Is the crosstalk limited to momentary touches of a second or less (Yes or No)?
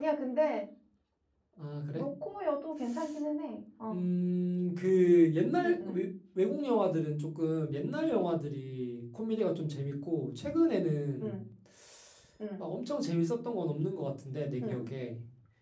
Yes